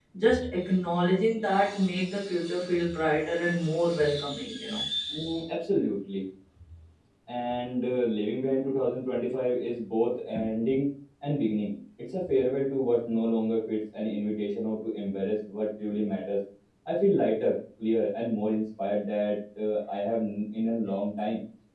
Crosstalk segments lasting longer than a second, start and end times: none

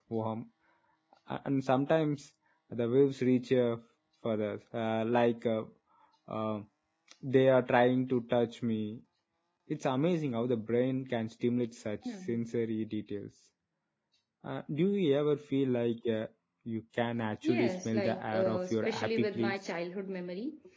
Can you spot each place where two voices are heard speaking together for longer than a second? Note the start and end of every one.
17.4-19.6

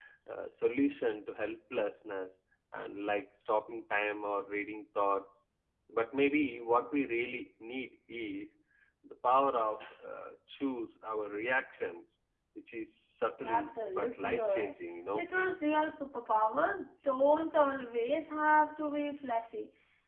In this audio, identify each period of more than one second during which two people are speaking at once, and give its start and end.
13.4-14.7

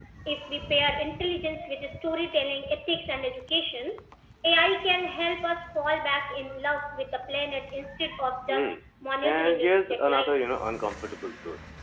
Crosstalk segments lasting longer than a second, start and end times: 9.2-10.5

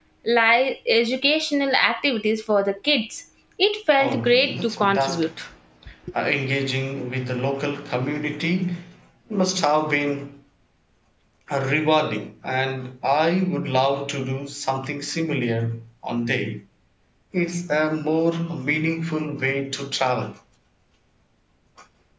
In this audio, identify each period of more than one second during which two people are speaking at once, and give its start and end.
4.0-5.3

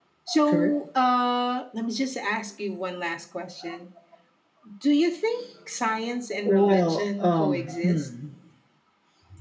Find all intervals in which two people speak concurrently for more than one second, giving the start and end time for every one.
6.4-8.1

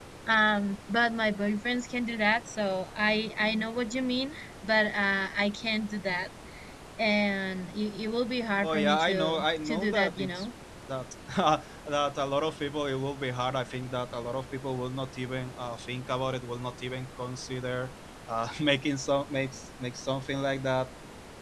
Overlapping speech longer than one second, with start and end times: 8.6-10.5

